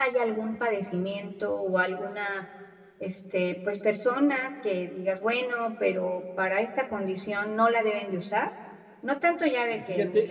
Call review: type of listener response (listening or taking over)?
listening